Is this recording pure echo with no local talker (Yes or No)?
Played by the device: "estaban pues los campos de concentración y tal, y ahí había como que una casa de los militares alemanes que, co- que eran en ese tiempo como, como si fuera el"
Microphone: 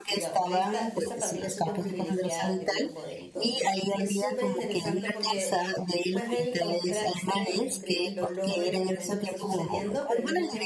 No